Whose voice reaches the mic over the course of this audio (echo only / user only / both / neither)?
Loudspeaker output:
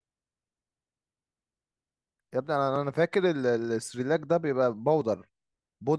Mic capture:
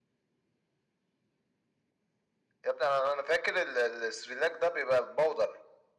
echo only